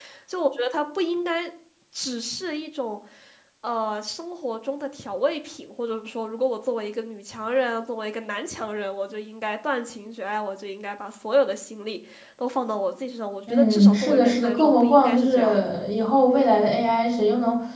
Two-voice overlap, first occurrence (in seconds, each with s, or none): 13.5 s